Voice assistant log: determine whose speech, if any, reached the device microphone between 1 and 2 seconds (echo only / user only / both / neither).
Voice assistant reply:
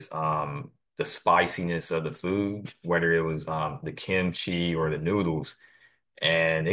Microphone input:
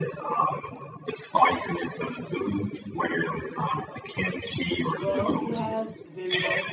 echo only